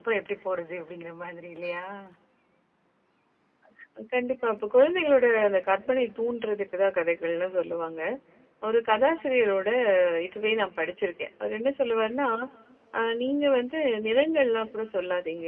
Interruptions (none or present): none